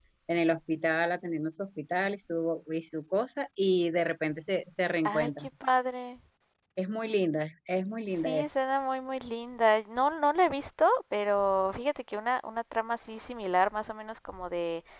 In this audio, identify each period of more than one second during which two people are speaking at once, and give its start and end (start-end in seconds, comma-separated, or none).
none